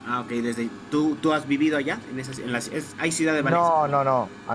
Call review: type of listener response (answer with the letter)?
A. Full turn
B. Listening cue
A